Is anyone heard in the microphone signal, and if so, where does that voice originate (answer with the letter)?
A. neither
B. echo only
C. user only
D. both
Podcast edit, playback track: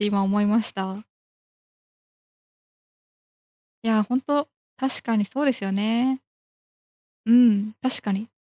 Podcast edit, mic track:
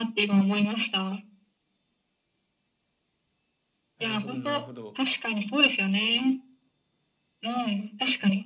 D